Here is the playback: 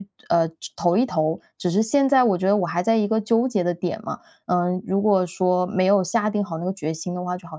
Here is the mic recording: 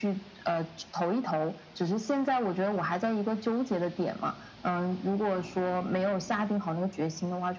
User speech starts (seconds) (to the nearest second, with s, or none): none